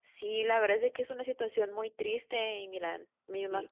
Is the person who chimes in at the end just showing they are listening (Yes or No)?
Yes